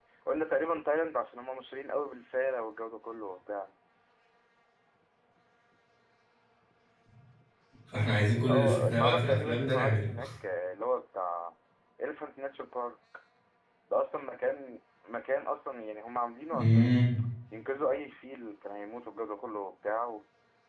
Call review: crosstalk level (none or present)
present